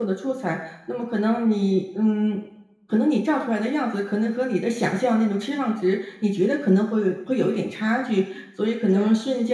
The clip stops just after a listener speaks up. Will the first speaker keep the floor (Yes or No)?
Yes